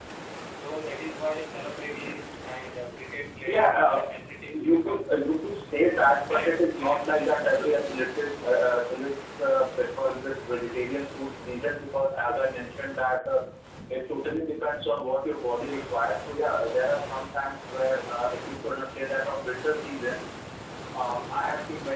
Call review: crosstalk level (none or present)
present